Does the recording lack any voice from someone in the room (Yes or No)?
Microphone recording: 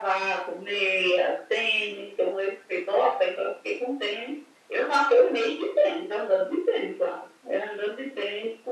Yes